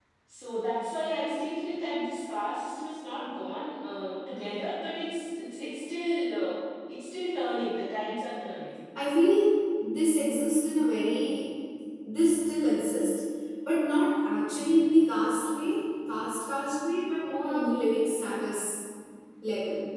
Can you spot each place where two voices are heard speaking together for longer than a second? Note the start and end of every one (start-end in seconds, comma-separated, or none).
none